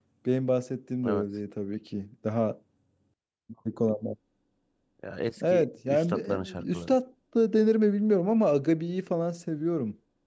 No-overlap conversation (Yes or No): No